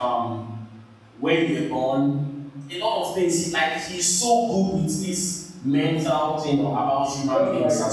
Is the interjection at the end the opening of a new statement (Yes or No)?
Yes